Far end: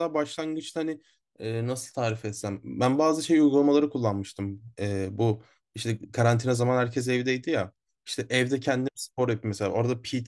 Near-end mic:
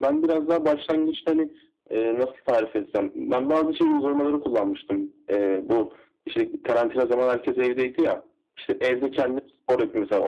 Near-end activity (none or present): none